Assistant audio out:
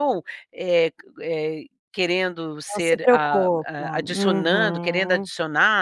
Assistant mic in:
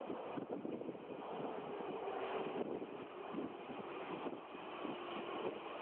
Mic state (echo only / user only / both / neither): neither